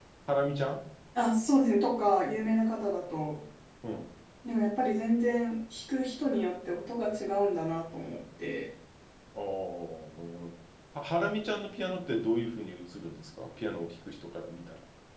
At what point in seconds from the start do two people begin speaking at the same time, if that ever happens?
none

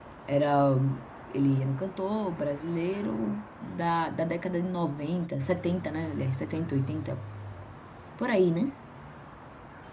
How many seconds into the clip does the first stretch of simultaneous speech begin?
none

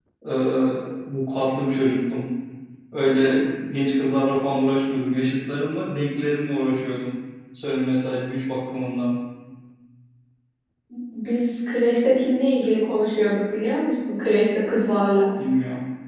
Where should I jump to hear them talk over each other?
none

